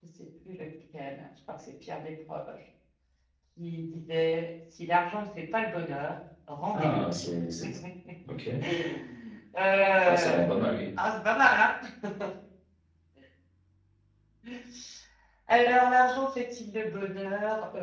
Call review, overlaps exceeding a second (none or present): none